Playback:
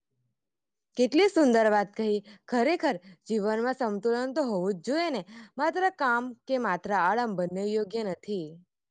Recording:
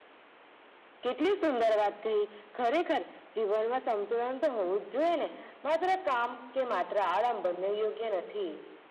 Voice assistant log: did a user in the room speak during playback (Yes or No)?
No